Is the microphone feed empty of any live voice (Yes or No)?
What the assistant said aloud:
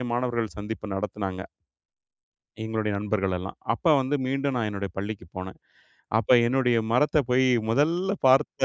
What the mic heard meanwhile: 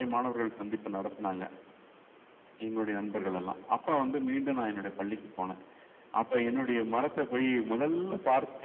Yes